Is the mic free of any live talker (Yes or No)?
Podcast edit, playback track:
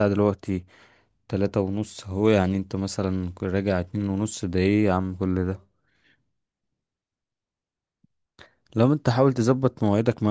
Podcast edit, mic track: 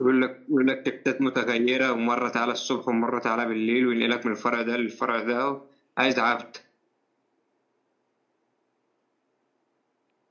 No